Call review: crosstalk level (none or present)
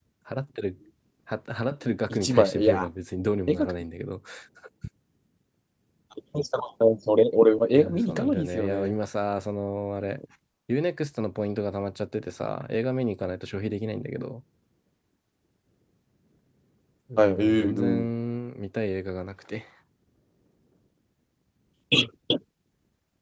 present